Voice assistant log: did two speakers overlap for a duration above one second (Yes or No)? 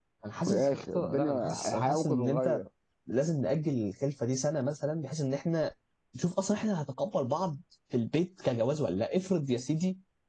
Yes